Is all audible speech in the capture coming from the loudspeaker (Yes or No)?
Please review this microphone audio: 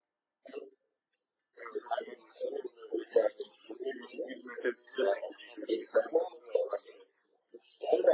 Yes